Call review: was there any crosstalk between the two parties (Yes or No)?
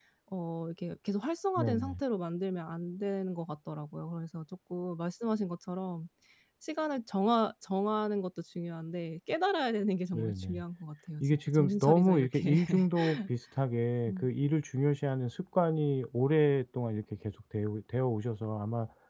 Yes